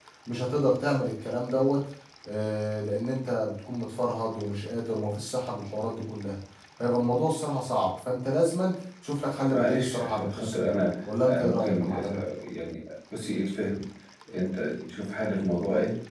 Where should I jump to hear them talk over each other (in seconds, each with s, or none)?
9.5 s